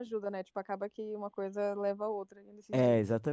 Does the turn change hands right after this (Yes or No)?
Yes